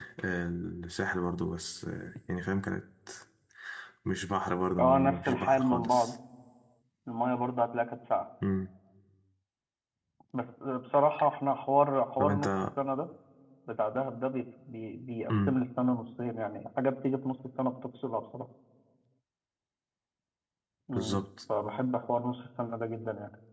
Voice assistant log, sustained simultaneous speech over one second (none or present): present